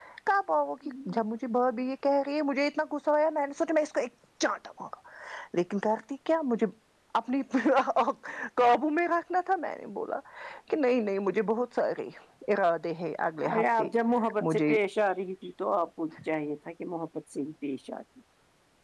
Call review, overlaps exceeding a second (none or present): none